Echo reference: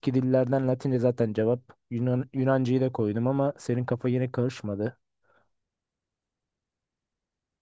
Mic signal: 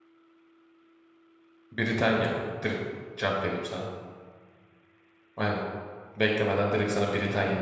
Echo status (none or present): none